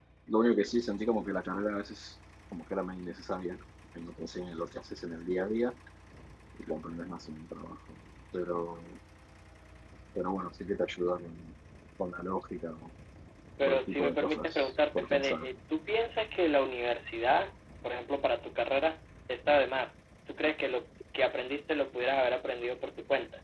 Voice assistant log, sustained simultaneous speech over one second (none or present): present